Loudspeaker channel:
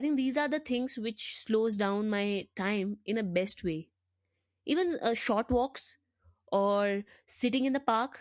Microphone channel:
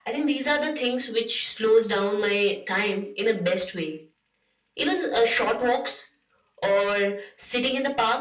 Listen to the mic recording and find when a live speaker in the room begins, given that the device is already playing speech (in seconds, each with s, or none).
none